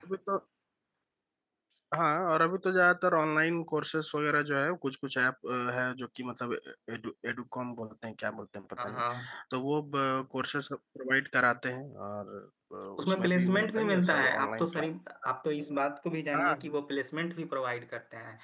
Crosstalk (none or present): present